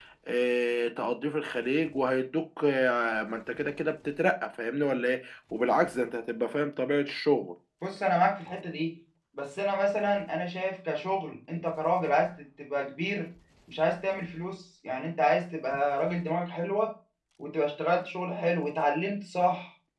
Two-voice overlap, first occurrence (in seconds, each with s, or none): none